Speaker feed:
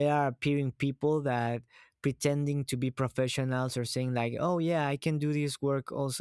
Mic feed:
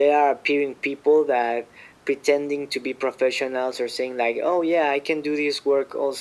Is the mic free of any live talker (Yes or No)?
Yes